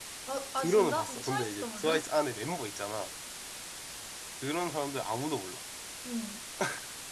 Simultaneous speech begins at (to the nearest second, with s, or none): 1 s